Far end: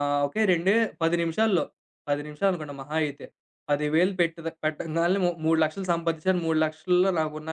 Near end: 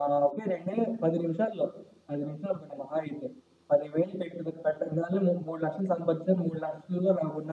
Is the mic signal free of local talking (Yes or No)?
Yes